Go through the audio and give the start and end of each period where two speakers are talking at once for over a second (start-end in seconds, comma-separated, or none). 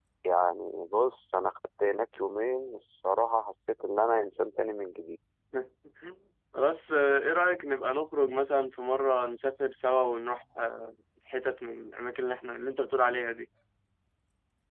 none